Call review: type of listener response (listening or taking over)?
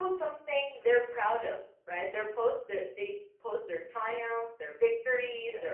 listening